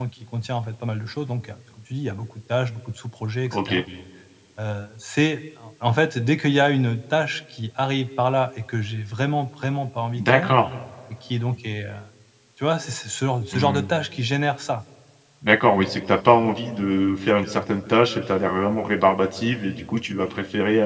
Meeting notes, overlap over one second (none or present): none